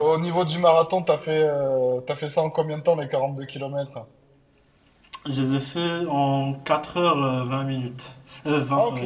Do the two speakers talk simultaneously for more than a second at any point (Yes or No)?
No